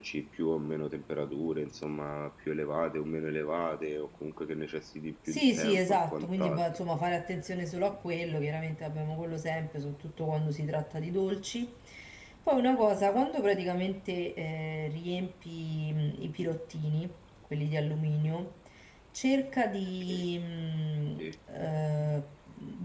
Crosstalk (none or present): present